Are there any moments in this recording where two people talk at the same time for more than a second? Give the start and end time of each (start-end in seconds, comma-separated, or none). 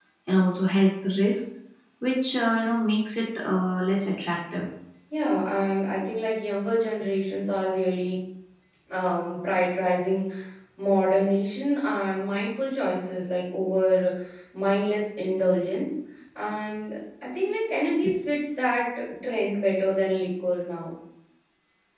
none